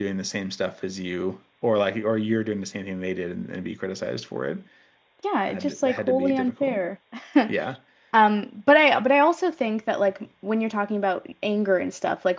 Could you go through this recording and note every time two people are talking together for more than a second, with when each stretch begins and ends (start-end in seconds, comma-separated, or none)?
5.5-6.8